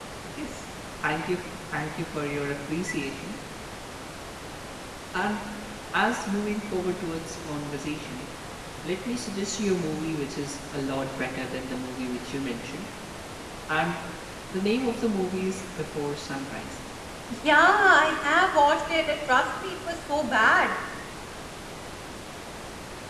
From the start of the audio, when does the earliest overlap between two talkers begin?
none

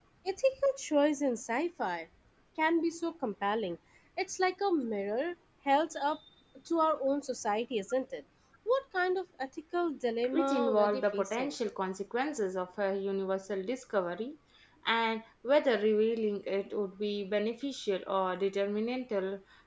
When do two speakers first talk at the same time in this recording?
10.3 s

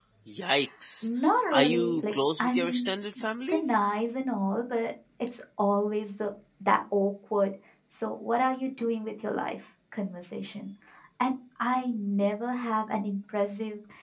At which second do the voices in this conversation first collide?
1.5 s

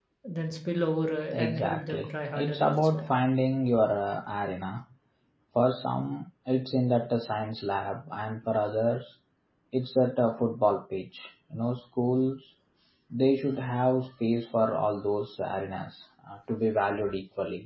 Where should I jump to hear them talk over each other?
1.3 s

